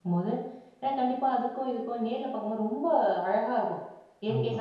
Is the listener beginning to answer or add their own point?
No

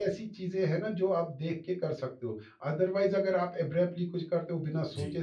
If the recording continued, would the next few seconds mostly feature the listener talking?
No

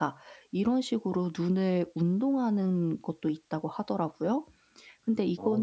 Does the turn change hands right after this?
No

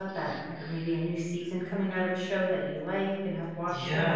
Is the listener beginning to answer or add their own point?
Yes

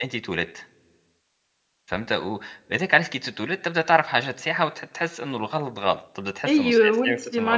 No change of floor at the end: No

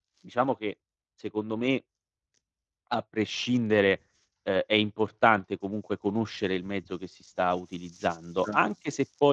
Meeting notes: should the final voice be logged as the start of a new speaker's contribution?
No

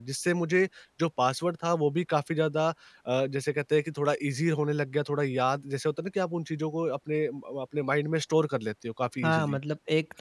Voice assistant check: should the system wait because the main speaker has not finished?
No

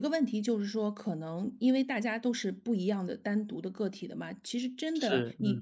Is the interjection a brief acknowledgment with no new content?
Yes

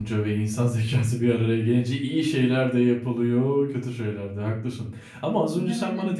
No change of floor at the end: Yes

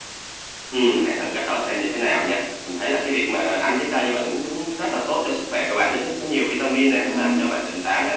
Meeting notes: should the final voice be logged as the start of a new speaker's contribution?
No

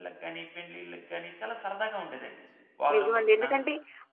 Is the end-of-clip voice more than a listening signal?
Yes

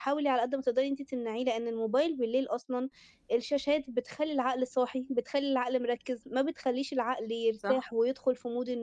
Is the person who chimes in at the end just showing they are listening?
Yes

